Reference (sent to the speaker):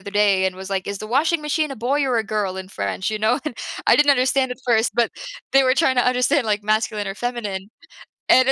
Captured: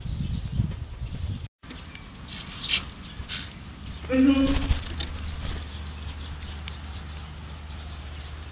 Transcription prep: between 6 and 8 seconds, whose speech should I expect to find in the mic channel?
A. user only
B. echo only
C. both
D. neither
D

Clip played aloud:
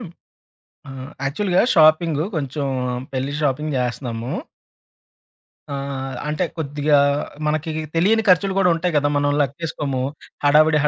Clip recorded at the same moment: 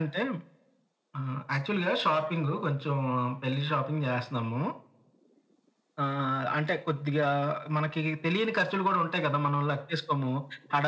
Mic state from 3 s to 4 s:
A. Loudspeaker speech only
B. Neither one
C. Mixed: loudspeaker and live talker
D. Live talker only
A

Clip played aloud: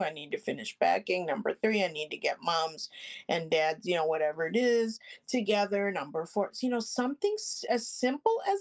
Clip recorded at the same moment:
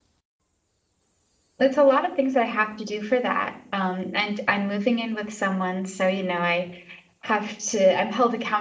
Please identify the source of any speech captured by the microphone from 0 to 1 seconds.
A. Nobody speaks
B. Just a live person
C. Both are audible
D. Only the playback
A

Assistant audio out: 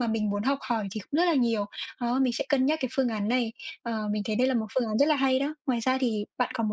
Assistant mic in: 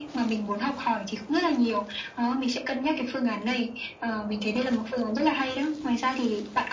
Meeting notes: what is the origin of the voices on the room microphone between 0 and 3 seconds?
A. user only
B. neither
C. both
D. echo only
D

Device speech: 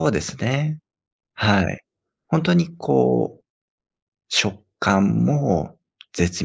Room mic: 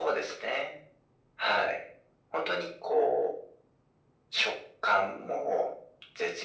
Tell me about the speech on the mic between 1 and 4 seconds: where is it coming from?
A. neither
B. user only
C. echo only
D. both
C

